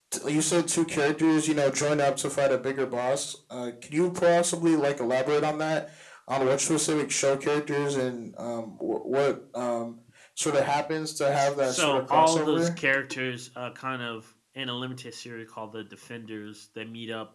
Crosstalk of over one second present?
Yes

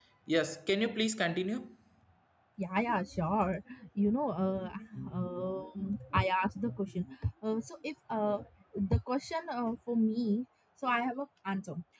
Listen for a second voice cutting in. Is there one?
No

